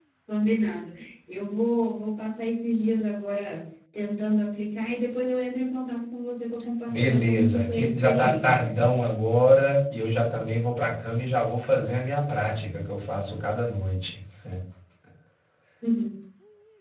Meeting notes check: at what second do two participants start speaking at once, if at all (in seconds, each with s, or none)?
6.9 s